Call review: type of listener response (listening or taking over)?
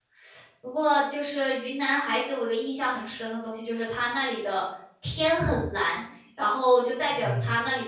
listening